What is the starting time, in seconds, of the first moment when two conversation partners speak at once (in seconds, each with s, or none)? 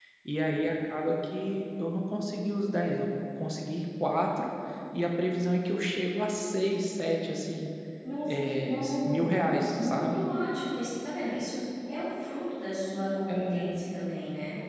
8.3 s